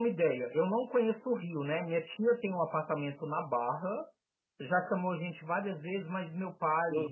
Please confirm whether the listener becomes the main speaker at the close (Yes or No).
No